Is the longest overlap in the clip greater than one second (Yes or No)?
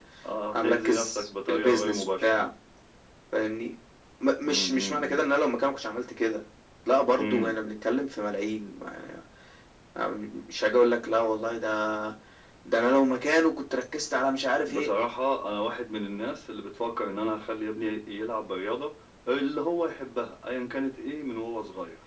Yes